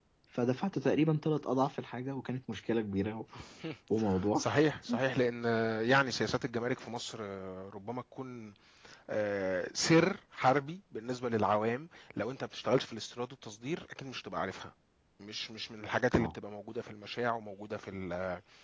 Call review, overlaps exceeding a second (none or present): none